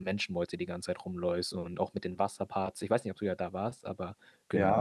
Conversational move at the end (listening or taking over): taking over